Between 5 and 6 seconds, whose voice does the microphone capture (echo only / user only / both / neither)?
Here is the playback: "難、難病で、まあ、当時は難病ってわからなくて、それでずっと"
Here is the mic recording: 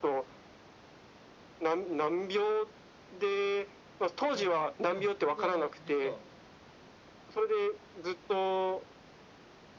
both